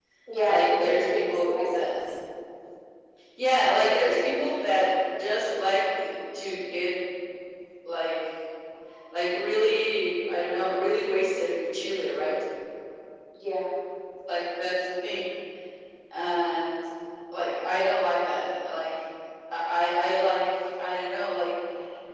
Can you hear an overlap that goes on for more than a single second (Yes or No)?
Yes